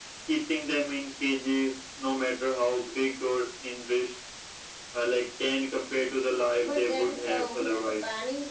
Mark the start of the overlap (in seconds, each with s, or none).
6.5 s